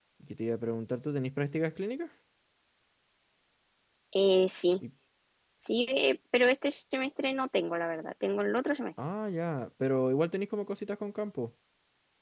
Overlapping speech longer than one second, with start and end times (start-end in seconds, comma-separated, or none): none